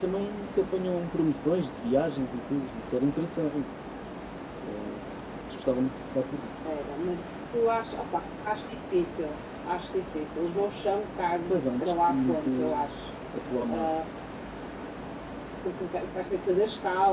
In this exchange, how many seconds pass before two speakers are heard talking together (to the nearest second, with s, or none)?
11 s